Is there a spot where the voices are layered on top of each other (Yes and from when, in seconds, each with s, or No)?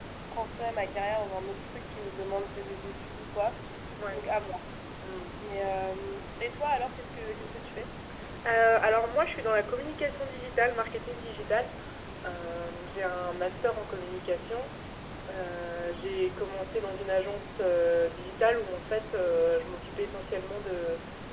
No